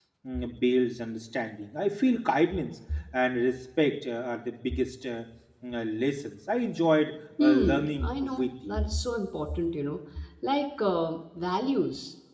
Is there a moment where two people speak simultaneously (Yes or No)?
Yes